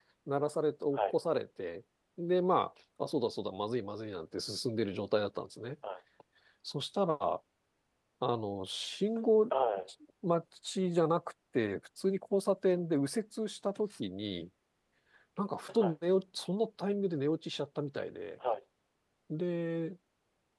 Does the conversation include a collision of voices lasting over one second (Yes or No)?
No